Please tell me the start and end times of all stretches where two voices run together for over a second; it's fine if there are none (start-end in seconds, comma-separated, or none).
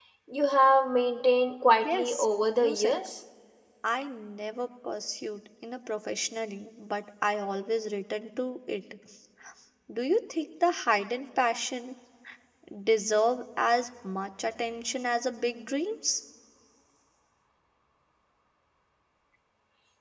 1.7-2.9